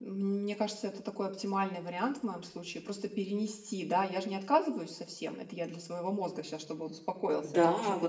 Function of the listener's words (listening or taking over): taking over